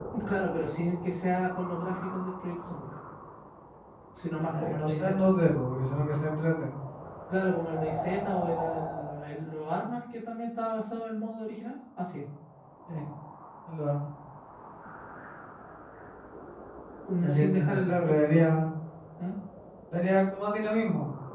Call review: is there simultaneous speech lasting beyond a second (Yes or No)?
Yes